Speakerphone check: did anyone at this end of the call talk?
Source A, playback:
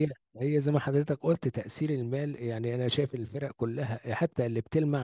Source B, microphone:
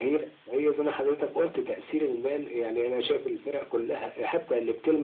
No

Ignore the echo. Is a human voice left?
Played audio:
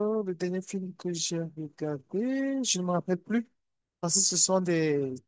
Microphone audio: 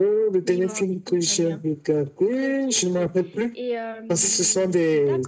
Yes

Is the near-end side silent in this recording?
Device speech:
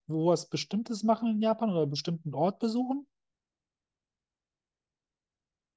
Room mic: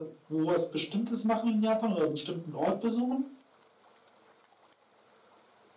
Yes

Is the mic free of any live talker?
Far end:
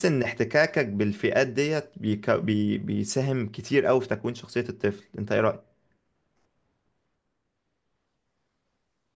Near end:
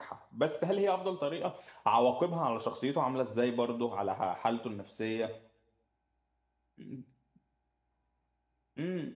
No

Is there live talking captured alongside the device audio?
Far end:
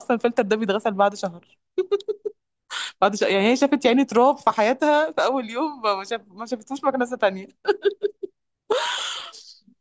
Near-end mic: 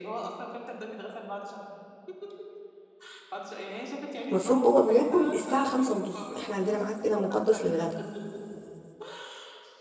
Yes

